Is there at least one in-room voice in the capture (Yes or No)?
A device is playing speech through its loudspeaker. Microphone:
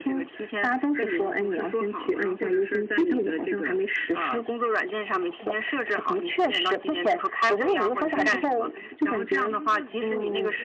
Yes